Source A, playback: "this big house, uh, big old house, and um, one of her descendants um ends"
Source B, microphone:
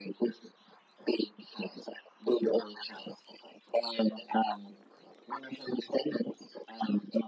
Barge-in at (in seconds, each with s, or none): none